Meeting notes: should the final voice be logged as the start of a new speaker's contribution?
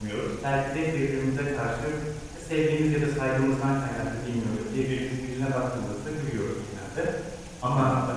No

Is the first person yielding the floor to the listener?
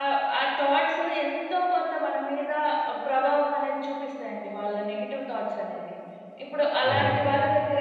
No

